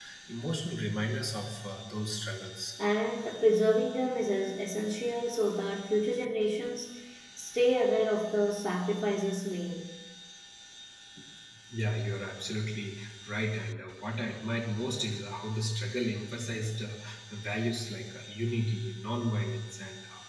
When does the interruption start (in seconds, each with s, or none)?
none